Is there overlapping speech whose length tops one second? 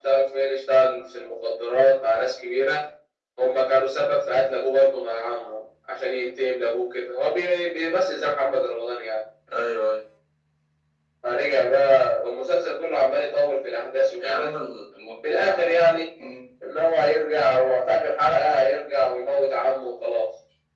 No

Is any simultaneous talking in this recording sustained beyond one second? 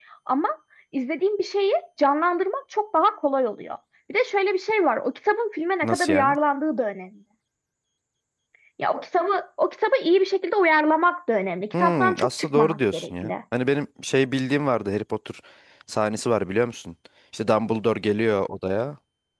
Yes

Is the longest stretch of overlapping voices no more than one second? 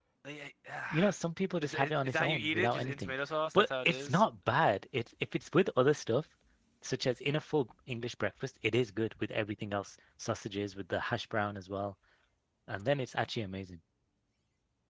No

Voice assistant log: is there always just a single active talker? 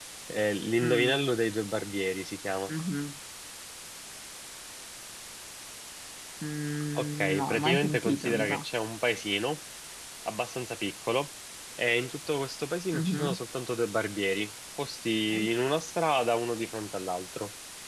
No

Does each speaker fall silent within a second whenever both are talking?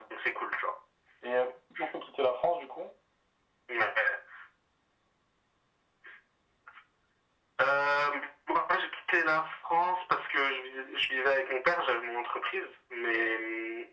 Yes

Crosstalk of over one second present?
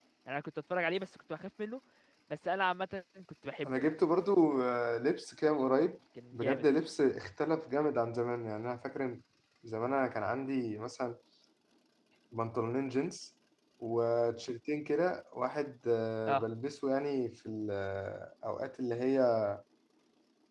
No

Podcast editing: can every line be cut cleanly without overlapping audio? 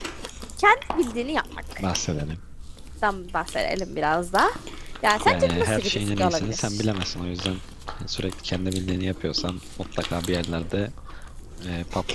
No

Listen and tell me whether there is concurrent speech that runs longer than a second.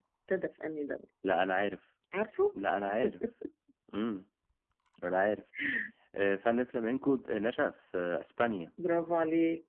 No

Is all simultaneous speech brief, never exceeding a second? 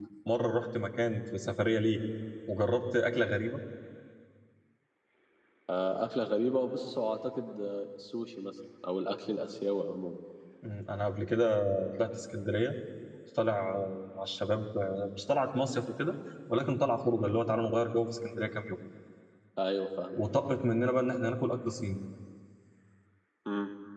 Yes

